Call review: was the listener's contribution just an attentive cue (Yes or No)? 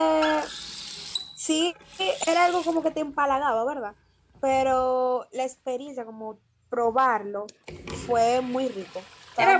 No